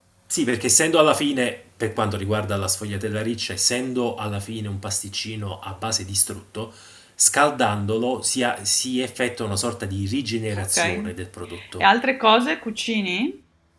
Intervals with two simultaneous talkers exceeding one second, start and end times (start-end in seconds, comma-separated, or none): none